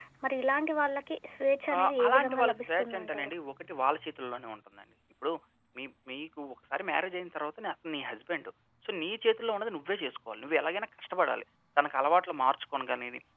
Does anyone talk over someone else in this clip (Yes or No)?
Yes